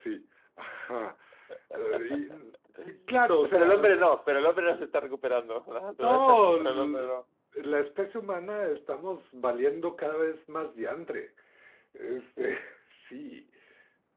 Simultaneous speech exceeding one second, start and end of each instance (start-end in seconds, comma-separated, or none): 6.0-7.2